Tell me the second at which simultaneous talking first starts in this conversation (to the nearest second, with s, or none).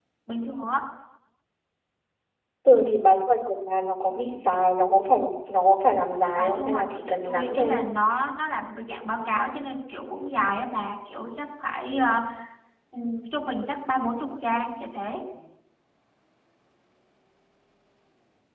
6 s